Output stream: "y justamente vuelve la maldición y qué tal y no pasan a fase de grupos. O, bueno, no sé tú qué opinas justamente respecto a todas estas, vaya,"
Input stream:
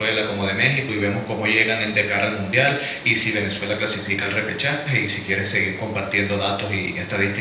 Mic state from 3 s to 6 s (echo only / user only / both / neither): user only